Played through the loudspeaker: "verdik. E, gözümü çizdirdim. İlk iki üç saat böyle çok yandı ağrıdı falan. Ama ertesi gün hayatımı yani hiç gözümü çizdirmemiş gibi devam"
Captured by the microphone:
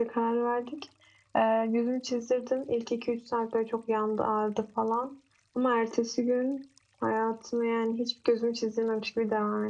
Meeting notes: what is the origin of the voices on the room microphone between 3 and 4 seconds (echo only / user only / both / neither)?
echo only